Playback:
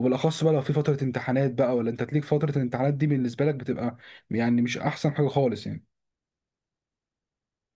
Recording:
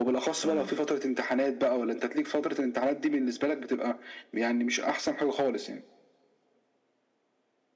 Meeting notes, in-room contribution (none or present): present